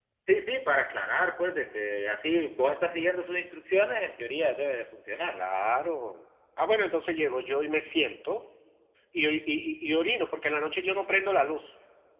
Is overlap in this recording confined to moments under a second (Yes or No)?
Yes